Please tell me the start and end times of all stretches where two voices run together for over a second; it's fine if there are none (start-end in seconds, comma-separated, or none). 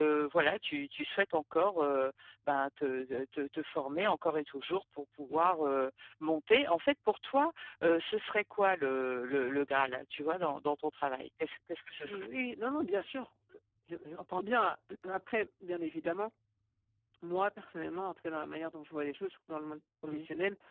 none